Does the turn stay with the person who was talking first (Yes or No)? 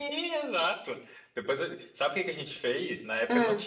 Yes